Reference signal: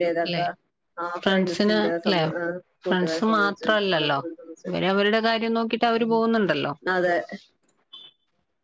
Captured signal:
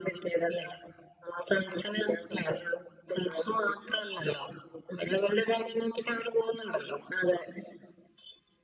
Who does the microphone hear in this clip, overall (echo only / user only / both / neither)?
echo only